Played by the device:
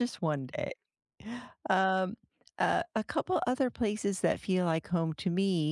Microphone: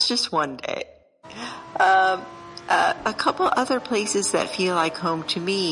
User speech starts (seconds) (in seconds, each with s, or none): none